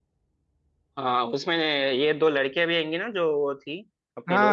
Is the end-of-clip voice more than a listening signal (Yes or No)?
Yes